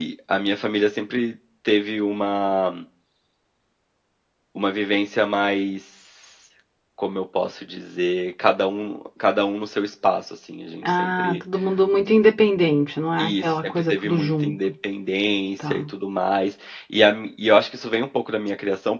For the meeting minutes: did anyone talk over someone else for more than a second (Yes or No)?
Yes